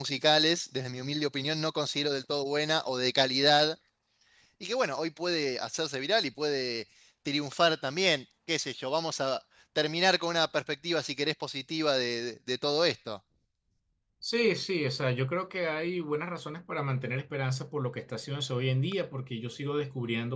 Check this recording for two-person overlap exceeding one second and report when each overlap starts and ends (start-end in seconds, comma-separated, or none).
none